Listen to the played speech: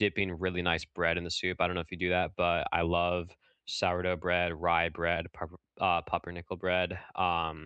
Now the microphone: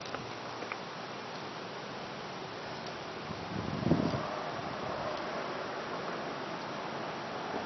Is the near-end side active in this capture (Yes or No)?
No